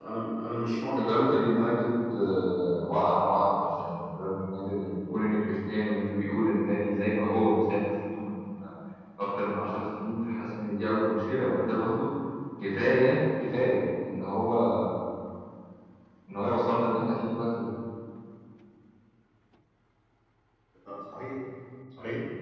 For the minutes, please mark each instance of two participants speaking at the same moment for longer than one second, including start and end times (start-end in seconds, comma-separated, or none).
none